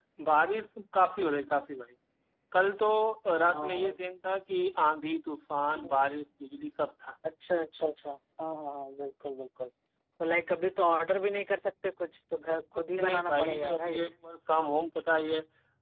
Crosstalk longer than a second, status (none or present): present